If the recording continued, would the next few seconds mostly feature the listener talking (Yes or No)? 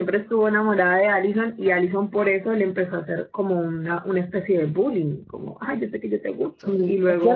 Yes